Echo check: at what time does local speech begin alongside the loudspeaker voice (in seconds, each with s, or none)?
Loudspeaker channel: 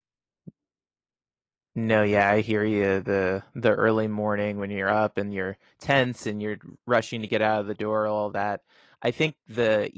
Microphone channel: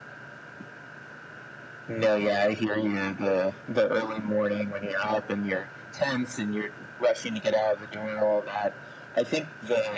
none